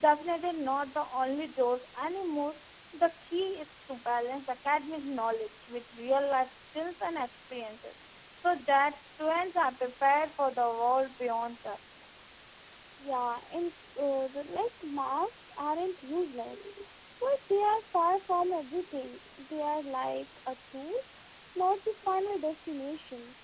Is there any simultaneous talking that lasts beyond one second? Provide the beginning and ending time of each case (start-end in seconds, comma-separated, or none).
none